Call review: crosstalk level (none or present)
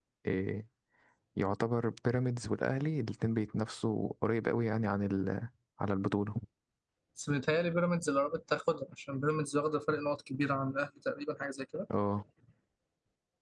none